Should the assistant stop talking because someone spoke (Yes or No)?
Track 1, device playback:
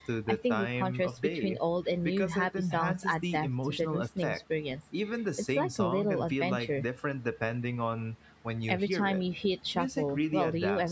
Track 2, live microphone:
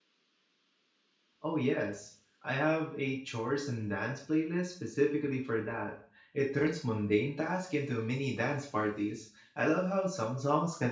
Yes